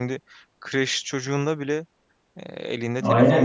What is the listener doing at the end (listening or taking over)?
taking over